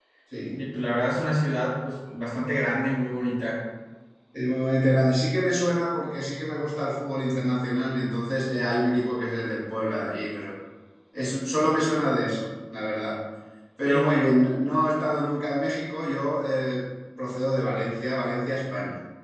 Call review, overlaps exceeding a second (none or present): none